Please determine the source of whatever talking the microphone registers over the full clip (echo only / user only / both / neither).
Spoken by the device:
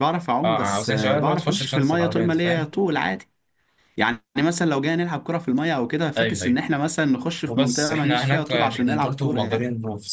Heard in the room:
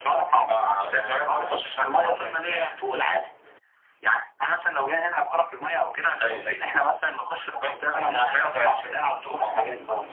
echo only